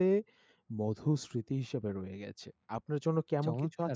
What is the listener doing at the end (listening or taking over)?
taking over